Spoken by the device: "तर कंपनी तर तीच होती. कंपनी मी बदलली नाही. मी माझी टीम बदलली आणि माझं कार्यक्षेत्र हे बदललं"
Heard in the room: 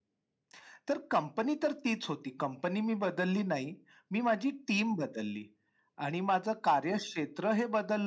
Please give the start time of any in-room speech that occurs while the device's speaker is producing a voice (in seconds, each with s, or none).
none